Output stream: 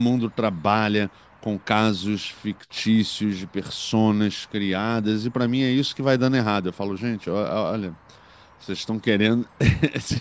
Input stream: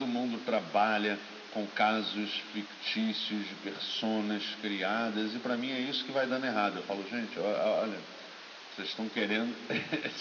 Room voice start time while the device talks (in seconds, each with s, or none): none